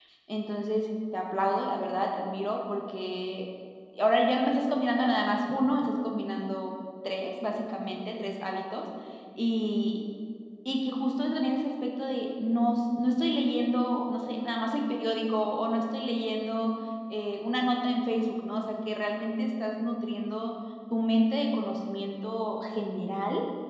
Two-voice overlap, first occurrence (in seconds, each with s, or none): none